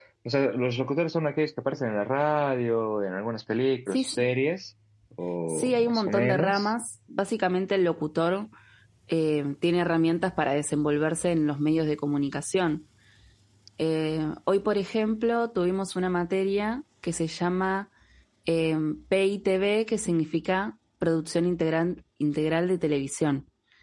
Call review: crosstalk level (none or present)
present